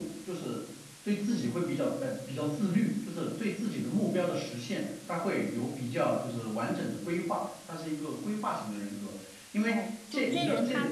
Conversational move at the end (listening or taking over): taking over